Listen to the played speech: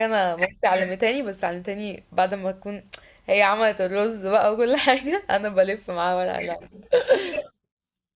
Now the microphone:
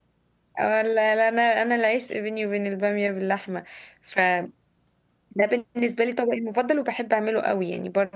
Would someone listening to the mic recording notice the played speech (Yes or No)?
No